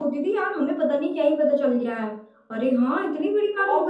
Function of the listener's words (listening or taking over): taking over